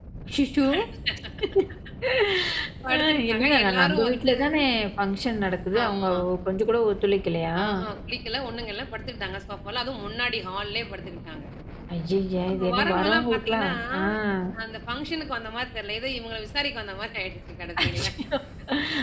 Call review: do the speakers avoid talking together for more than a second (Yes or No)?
No